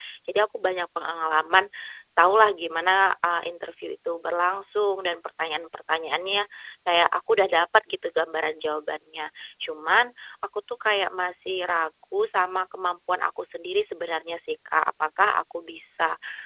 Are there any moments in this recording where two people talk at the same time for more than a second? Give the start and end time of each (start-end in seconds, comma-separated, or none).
none